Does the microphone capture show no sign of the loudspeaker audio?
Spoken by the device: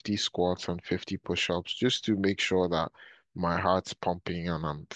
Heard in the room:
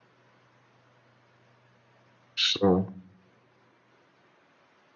Yes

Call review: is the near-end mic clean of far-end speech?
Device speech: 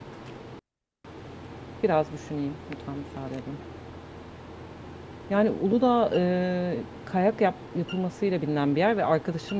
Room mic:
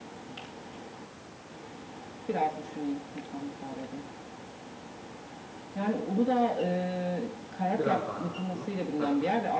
No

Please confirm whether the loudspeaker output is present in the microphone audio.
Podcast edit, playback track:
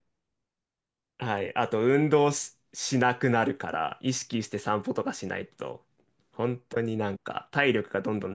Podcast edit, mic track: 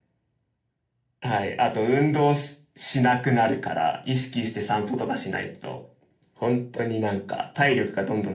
Yes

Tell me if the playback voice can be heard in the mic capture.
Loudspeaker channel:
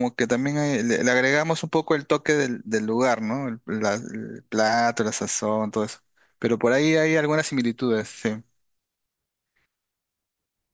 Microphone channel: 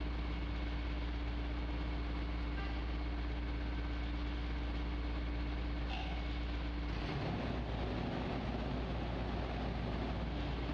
No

